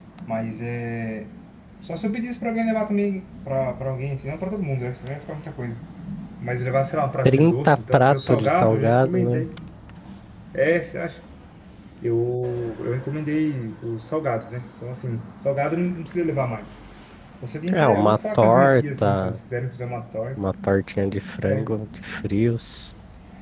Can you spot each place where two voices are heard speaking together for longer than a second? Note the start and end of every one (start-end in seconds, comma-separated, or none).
7.2-9.4, 17.7-19.4